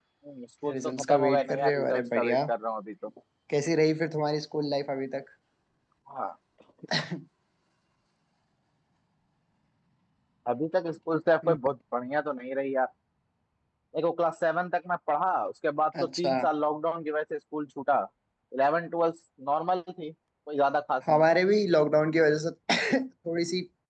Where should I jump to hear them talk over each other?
0.8 s

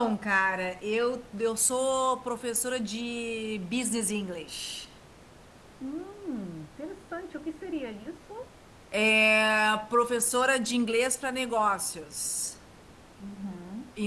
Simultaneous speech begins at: none

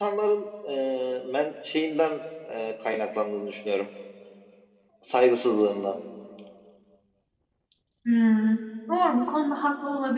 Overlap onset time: none

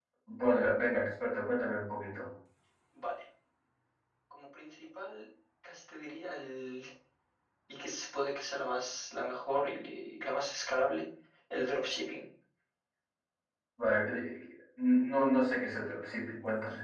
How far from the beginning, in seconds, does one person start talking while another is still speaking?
none

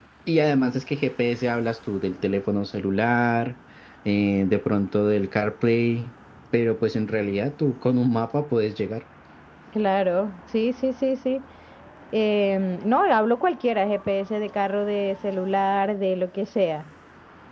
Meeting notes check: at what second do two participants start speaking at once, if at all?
none

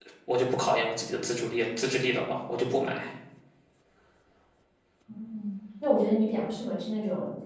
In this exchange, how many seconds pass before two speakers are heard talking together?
none

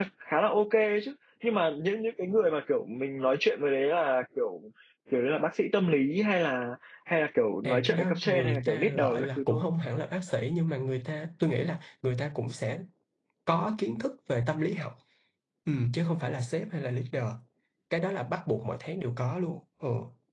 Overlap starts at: 7.6 s

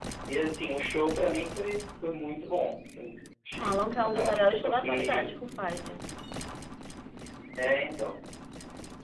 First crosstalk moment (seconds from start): 3.6 s

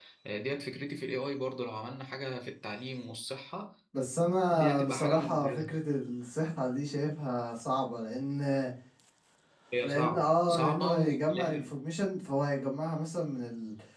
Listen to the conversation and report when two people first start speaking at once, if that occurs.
4.5 s

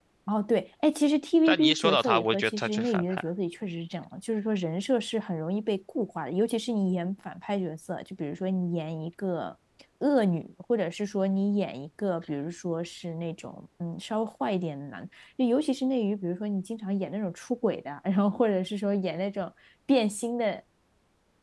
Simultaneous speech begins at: 1.4 s

